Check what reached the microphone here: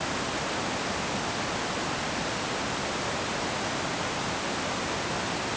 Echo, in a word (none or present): none